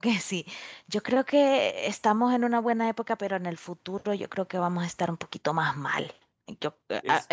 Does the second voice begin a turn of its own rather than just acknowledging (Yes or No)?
No